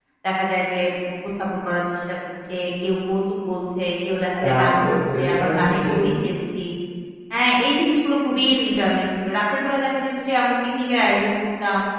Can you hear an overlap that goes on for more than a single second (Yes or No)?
Yes